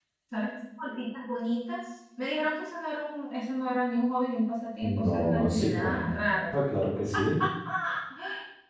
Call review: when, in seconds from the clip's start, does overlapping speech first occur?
4.8 s

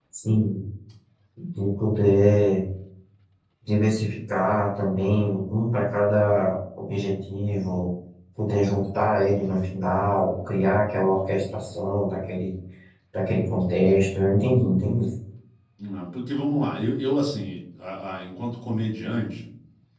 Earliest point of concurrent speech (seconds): none

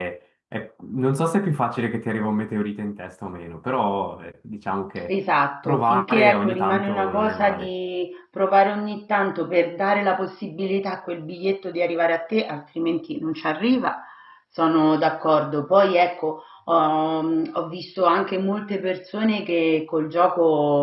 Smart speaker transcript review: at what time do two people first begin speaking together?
5.6 s

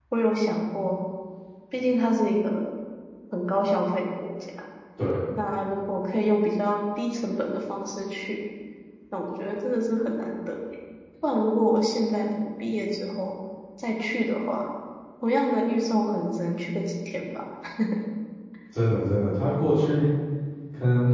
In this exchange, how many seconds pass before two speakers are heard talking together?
none

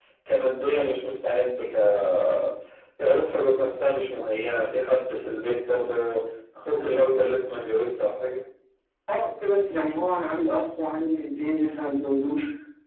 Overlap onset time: none

